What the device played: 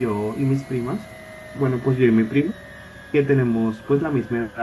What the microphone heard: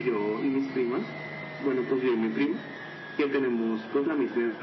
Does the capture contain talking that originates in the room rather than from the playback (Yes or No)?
No